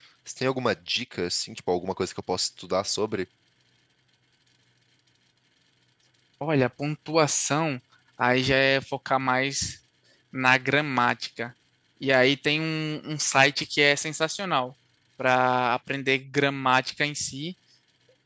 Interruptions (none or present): none